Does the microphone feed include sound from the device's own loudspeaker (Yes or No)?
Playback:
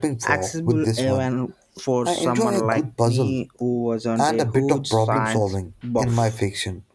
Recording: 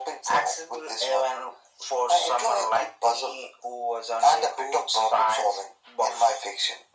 Yes